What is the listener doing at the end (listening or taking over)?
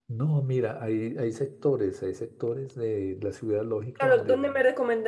taking over